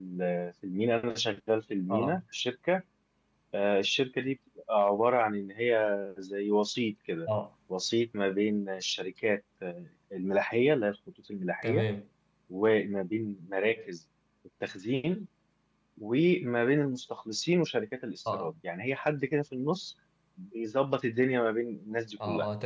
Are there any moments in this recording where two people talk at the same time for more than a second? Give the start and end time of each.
none

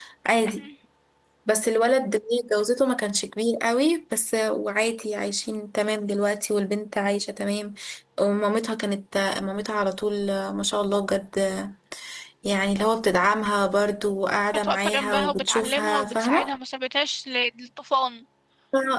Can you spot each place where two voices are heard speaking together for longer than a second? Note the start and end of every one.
14.5-16.5

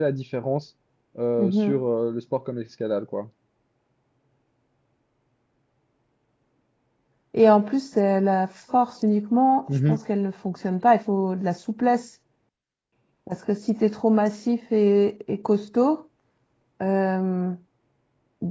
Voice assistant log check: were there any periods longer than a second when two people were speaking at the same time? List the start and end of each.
none

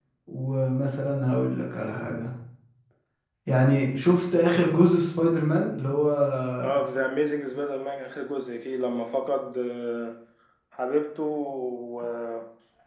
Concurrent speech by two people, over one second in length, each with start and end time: none

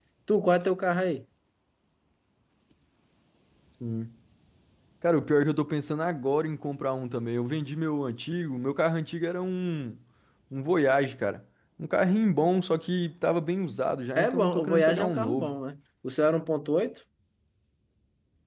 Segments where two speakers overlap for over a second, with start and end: 14.2-15.5

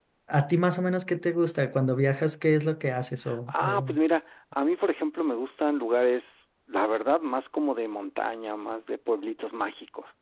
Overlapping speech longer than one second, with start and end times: none

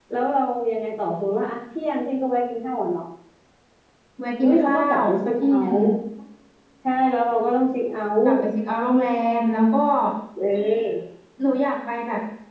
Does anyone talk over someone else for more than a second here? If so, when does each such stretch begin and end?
4.4-5.8

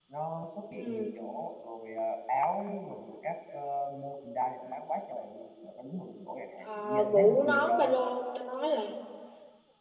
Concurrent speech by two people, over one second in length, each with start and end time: 6.7-7.9

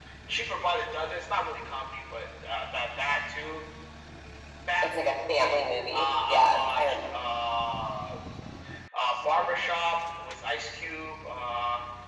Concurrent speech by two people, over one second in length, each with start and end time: 4.8-7.2

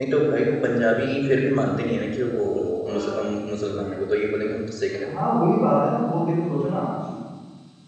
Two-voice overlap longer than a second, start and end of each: none

